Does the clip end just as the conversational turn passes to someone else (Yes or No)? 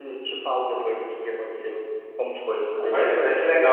Yes